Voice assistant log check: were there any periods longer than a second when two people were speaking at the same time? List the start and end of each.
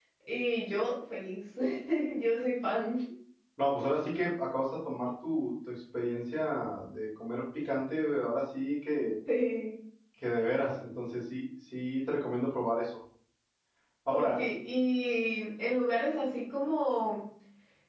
none

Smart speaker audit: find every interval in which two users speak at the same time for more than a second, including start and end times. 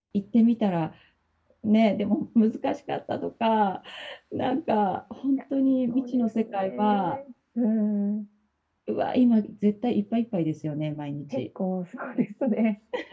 5.9-7.2

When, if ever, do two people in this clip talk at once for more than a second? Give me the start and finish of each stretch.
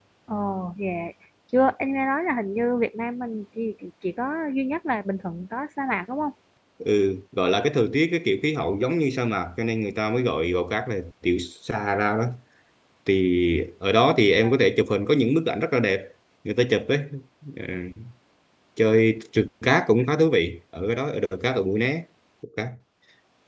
none

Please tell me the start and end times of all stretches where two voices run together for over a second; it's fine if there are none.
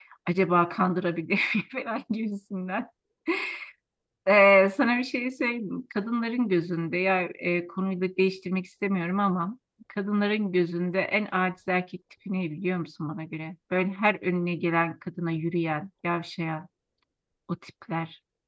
none

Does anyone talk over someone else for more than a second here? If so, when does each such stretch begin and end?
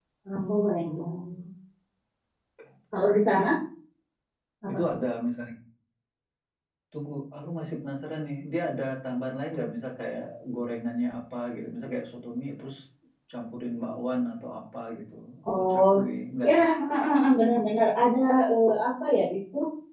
none

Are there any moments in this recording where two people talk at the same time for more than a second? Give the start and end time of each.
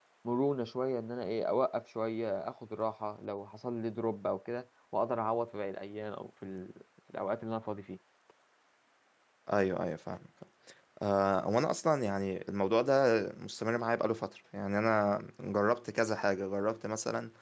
none

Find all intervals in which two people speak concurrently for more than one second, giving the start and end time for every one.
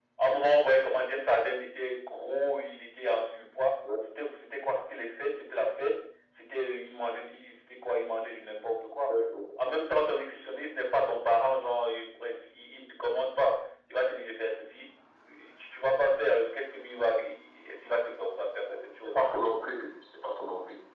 none

